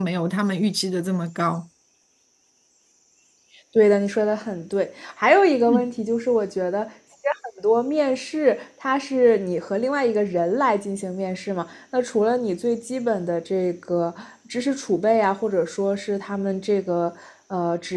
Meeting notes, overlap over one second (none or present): none